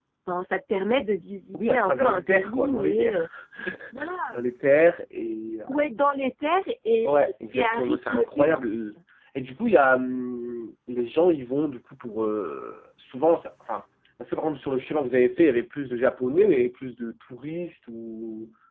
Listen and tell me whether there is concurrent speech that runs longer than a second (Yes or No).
Yes